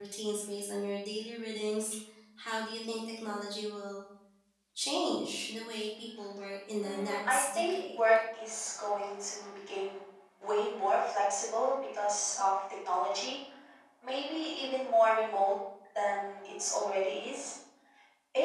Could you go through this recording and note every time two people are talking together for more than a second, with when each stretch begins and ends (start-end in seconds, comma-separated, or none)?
6.8-8.0